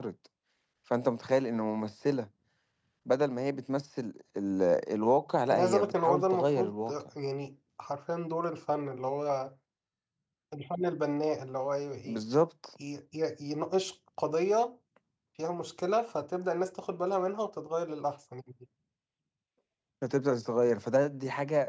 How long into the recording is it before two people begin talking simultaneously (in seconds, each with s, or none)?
5.5 s